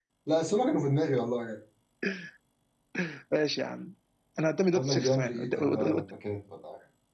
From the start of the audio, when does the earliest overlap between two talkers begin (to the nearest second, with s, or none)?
5 s